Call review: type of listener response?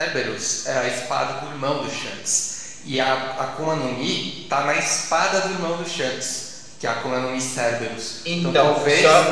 listening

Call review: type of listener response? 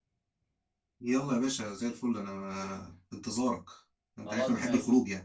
taking over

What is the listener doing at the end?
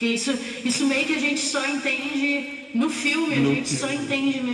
listening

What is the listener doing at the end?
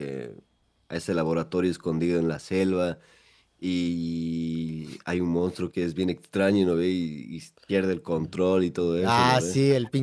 taking over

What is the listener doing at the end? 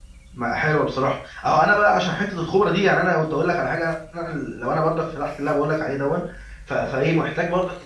listening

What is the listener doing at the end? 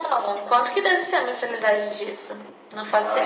taking over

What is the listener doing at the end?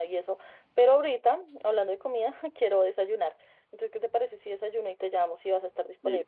taking over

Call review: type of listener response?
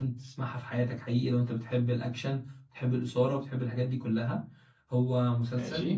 listening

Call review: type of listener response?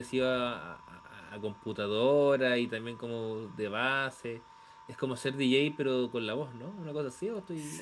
taking over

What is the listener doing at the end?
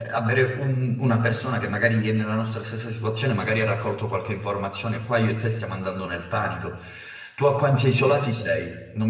listening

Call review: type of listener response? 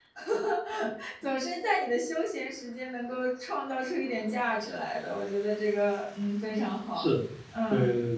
taking over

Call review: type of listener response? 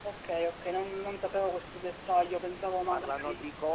taking over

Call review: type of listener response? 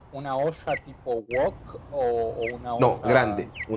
taking over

